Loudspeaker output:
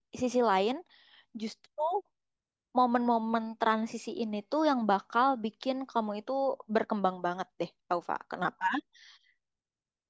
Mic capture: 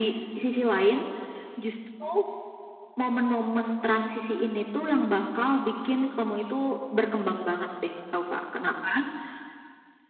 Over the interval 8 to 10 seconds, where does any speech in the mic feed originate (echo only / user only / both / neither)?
echo only